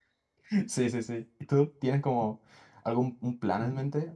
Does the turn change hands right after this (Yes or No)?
Yes